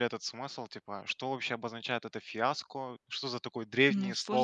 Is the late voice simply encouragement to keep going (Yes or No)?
Yes